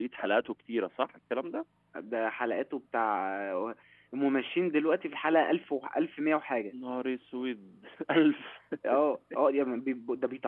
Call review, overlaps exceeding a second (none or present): none